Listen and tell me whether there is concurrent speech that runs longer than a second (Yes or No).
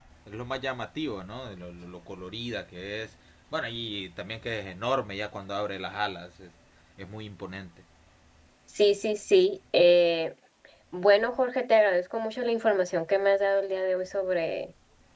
No